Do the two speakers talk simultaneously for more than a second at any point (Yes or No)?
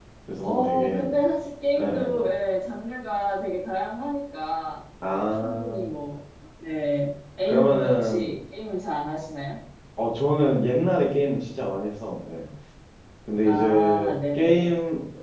Yes